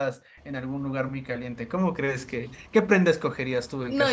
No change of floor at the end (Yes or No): No